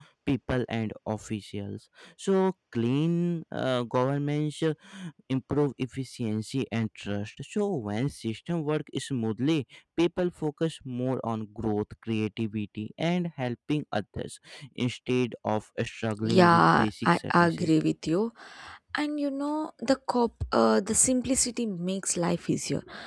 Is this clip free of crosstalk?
No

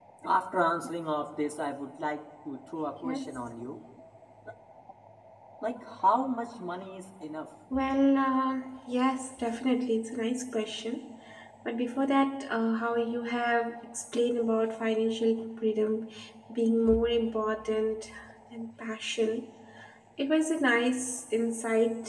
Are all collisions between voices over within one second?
Yes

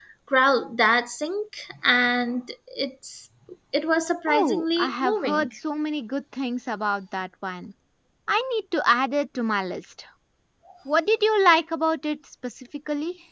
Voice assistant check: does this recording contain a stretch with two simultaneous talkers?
Yes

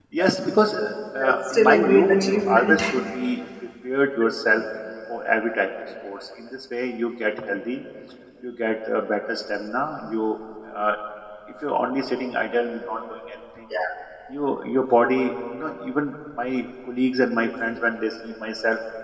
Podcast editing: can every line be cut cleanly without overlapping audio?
No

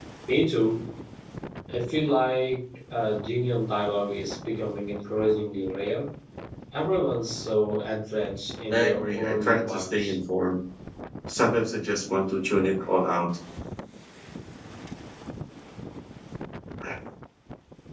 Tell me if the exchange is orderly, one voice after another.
No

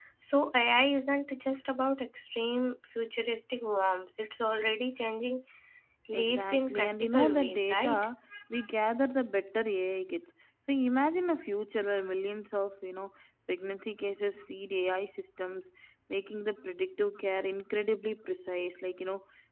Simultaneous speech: Yes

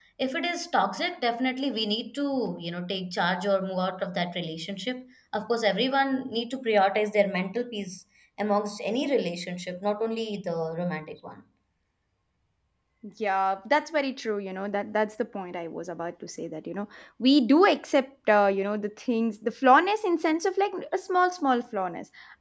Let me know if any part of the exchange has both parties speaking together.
No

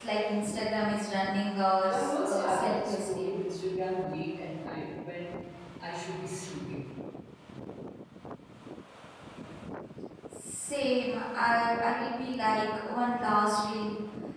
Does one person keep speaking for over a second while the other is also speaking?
Yes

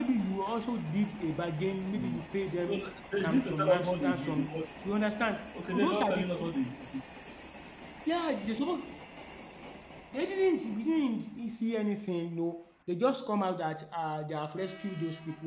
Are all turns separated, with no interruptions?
No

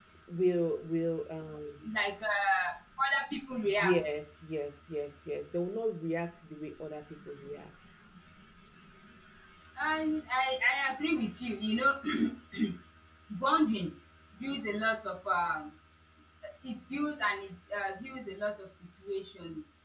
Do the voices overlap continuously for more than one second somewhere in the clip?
No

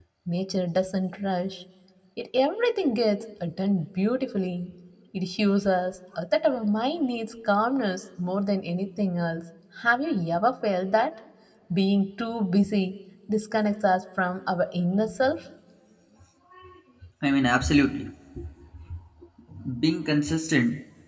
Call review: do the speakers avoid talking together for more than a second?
Yes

